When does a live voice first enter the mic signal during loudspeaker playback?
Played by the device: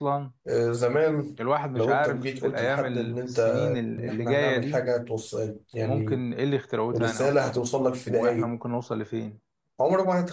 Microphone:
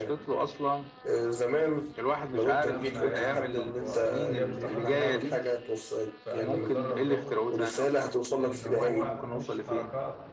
3 s

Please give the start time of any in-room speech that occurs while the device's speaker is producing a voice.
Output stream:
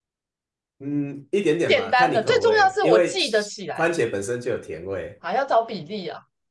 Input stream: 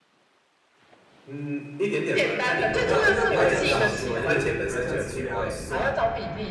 3 s

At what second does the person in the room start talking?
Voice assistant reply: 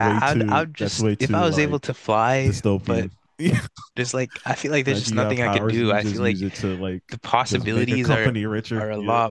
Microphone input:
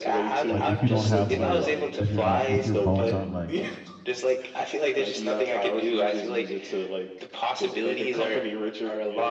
0 s

